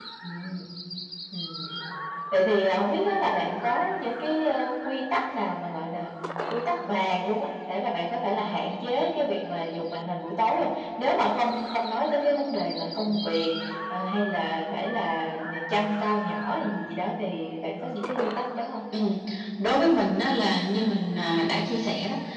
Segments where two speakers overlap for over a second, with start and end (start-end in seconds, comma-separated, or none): none